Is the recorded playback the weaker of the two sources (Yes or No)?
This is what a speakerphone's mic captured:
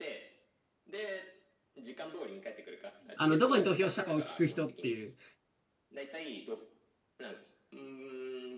Yes